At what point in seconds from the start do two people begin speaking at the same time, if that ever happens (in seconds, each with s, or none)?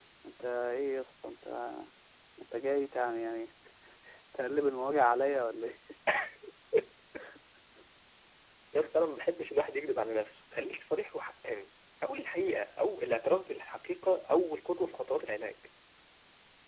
none